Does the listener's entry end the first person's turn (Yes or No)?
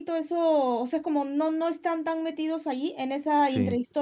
No